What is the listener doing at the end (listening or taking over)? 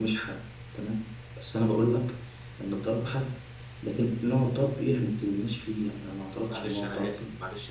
taking over